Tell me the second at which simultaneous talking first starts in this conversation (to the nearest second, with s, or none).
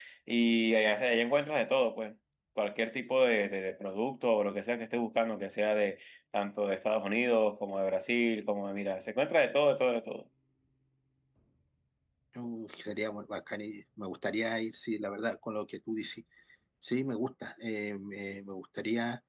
none